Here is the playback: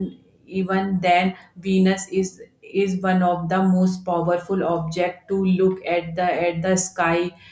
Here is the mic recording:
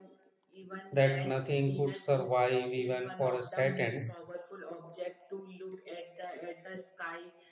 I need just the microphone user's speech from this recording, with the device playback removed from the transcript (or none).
that nothing could survive even for a second.